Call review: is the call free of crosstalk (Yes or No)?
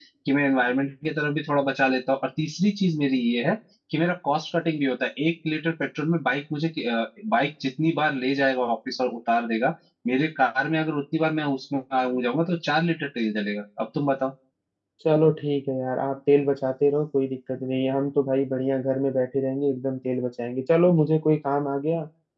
Yes